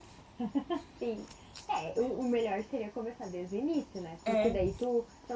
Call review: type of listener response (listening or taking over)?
listening